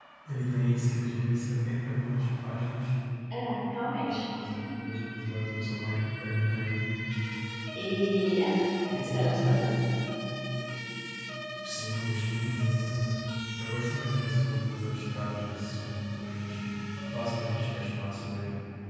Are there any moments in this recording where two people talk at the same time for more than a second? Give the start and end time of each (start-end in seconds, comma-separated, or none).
none